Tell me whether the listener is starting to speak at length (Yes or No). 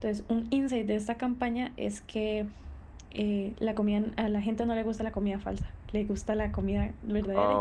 Yes